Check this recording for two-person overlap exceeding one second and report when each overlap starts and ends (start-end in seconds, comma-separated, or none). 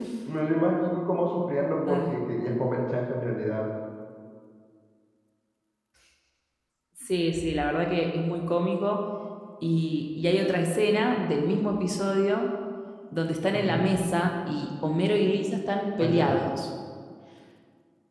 none